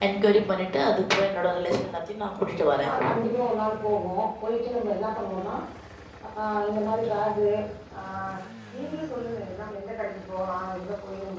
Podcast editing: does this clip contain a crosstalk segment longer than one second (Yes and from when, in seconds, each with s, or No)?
No